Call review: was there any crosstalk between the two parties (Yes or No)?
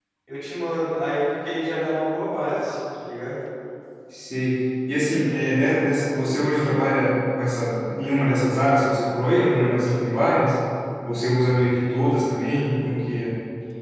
No